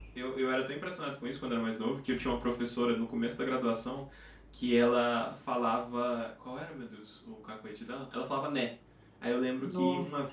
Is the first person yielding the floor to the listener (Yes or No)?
No